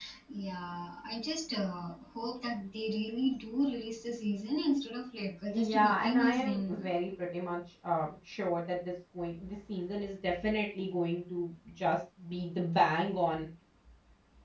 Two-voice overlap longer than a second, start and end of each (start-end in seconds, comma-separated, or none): 5.5-6.9